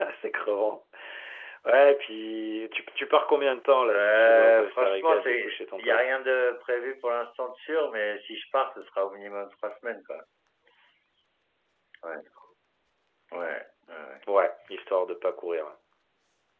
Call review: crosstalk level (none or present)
present